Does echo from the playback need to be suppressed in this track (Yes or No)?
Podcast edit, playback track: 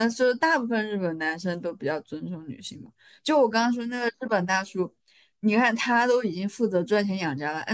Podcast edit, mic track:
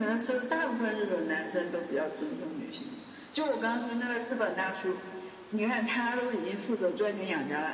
Yes